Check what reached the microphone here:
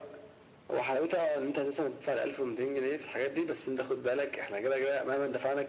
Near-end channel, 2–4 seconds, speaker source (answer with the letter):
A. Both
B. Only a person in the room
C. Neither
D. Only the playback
D